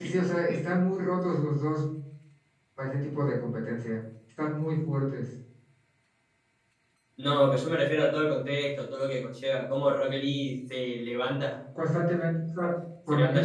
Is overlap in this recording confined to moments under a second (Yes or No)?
Yes